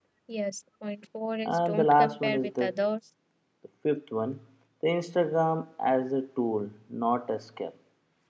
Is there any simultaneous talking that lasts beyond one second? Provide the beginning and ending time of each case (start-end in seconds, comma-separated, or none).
1.4-2.7